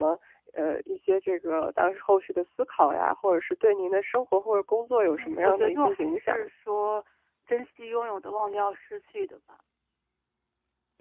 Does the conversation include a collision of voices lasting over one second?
Yes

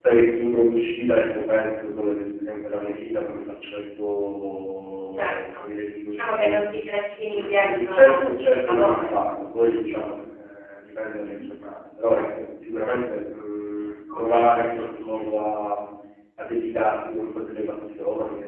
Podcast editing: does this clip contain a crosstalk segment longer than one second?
Yes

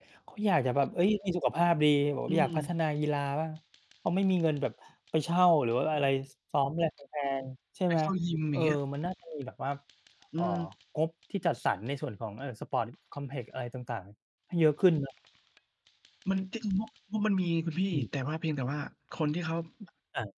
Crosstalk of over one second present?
No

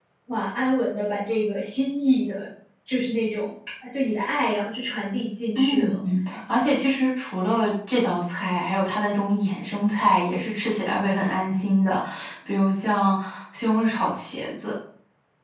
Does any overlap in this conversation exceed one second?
No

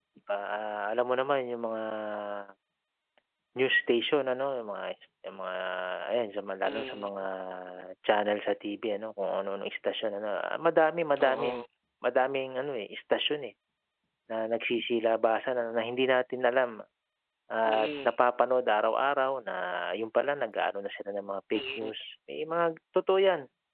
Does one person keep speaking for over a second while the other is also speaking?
No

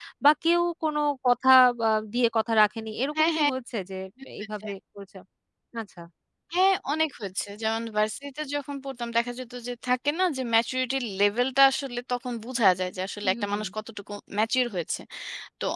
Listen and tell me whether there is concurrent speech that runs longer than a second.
No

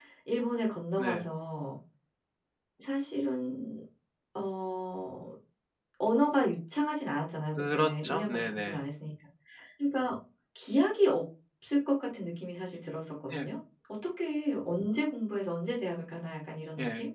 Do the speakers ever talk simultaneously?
Yes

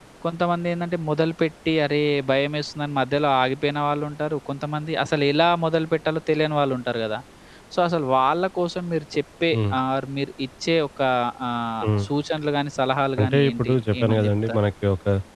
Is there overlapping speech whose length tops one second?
Yes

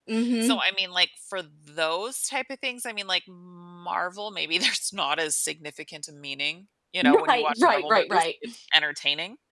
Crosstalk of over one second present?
Yes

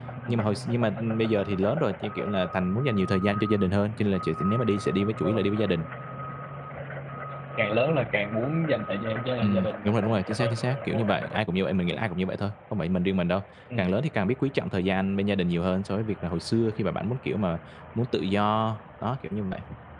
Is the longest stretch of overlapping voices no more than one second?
No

